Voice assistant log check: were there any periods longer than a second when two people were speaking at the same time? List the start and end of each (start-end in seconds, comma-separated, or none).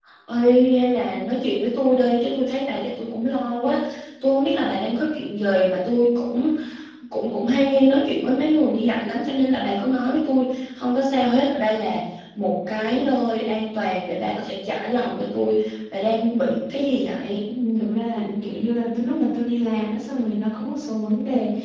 none